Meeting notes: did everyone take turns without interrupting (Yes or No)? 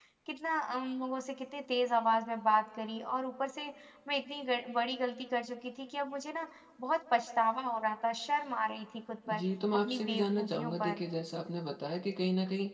No